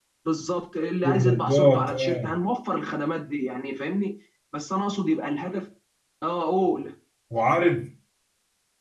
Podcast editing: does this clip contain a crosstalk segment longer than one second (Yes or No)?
Yes